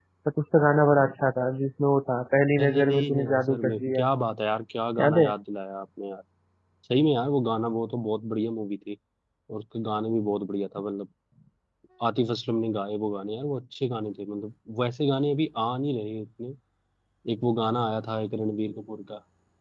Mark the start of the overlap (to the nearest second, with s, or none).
3 s